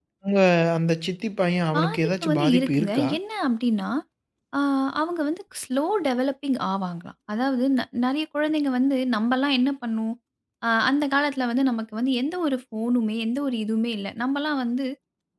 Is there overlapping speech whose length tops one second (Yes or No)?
Yes